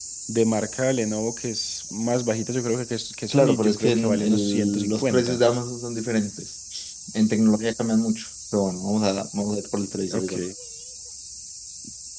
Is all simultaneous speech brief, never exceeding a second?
No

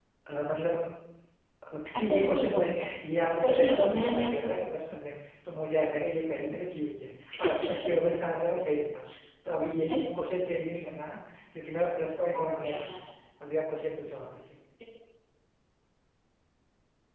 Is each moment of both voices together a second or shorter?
No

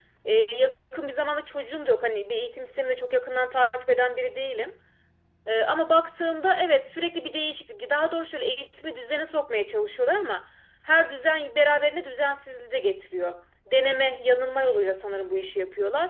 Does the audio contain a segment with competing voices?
No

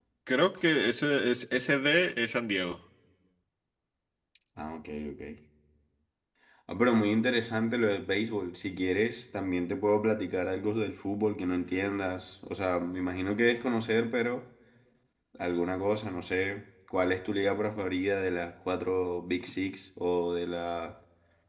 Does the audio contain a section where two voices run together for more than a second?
No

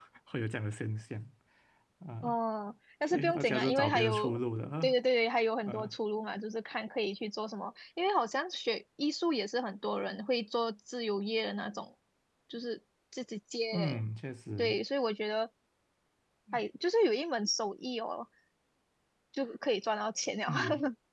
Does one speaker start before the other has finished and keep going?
Yes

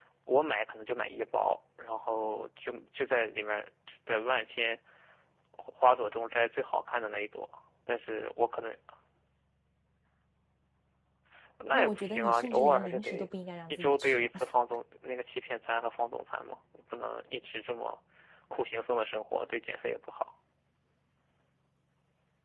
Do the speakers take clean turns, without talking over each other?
No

